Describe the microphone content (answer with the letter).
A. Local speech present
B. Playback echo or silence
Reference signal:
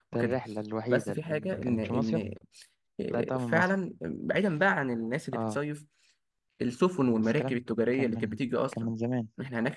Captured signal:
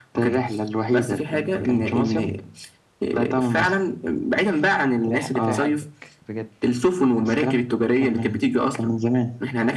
A